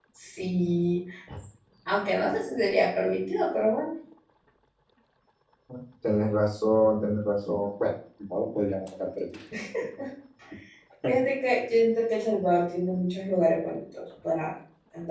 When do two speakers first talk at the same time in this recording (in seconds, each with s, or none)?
none